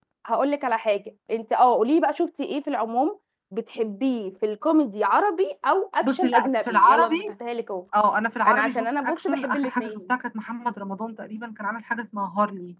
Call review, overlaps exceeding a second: present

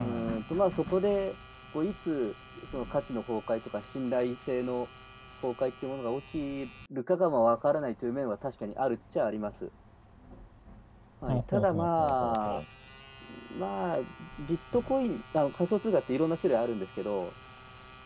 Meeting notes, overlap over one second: present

